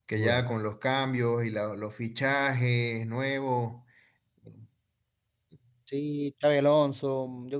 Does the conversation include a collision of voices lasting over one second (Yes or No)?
No